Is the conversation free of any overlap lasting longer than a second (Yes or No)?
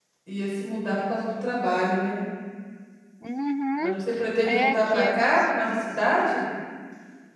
No